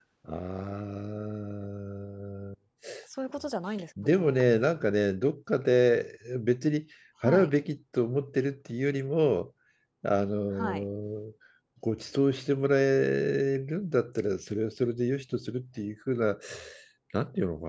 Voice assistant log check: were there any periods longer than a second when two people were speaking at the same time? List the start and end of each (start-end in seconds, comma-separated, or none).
none